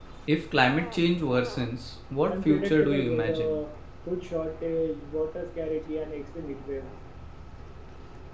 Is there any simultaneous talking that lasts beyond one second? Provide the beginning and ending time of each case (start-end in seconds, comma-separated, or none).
2.3-3.6